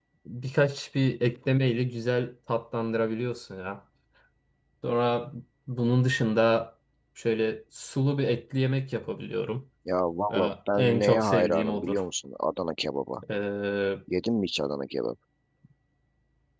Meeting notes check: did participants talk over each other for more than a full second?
Yes, from 10.3 s

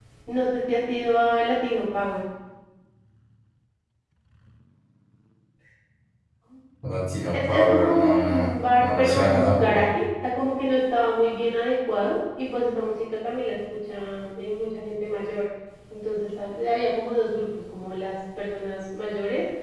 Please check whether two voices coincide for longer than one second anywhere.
Yes, from 7.3 s

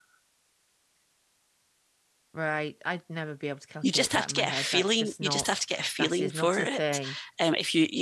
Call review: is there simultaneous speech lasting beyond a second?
Yes, from 3.8 s

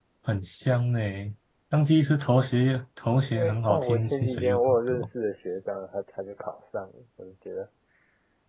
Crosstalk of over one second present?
Yes, from 3.3 s

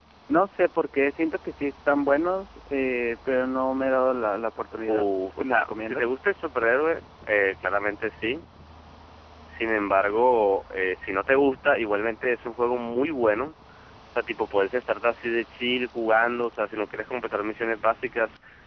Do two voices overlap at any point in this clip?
Yes, from 4.9 s

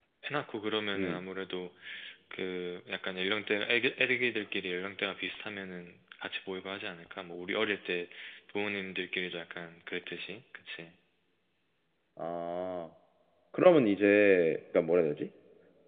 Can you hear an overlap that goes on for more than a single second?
No

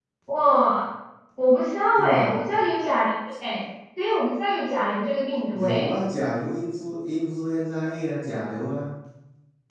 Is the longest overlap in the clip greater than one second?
No

